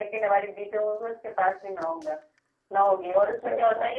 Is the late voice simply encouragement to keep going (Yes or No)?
Yes